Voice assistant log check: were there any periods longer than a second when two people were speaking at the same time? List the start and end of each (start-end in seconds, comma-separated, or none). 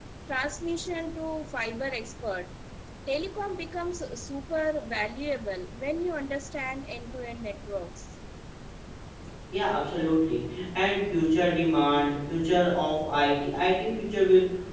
none